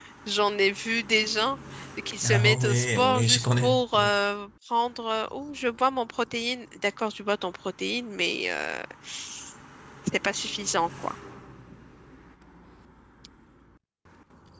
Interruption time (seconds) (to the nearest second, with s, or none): 2 s